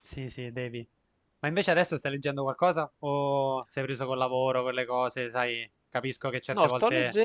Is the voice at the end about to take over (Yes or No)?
Yes